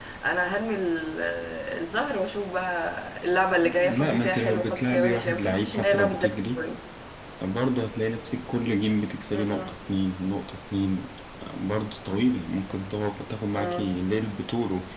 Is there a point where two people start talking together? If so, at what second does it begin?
3.9 s

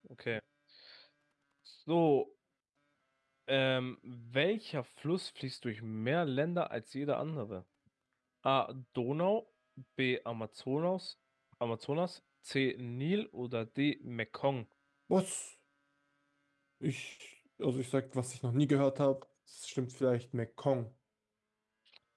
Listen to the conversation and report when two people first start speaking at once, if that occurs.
none

